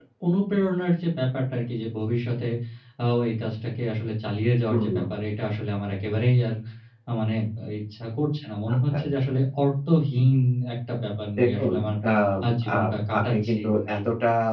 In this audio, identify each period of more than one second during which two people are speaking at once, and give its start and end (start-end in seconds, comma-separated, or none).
12.8-14.0